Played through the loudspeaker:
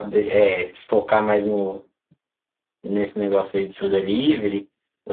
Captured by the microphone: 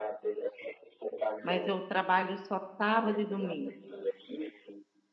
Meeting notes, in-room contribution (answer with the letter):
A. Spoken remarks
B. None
A